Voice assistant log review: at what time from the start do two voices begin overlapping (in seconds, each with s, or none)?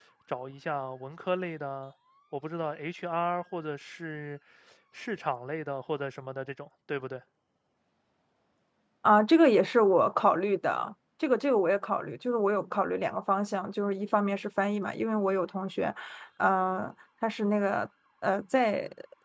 none